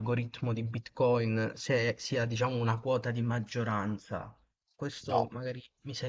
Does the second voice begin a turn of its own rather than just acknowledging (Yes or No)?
No